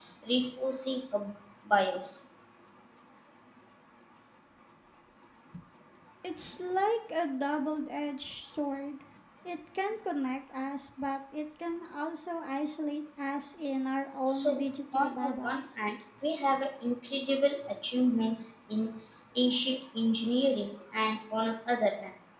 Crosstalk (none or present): present